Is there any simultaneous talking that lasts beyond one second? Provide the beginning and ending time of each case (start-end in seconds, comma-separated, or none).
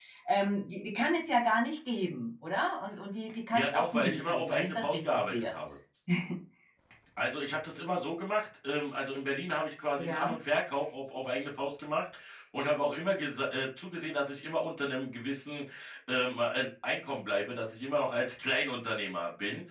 3.5-5.6